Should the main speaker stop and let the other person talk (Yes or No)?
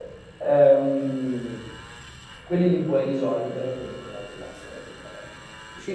Yes